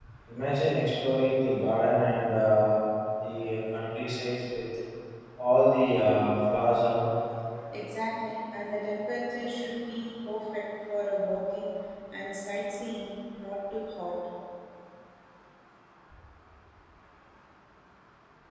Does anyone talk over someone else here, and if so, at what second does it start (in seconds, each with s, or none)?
none